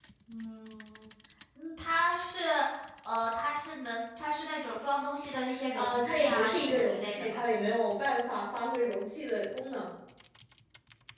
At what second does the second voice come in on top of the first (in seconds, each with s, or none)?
5.7 s